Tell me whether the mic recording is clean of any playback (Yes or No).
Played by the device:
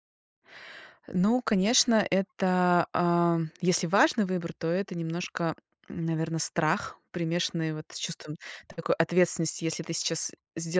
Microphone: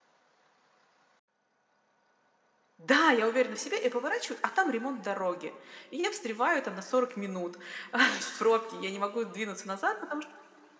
Yes